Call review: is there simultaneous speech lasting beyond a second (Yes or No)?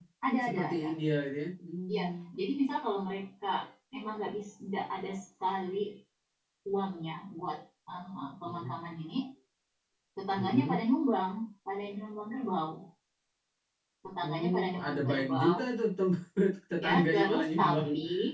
Yes